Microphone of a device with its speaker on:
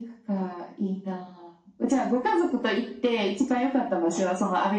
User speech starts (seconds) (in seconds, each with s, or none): none